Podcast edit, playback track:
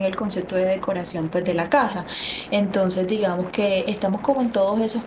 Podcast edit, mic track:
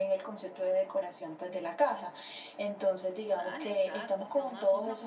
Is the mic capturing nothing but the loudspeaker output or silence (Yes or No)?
No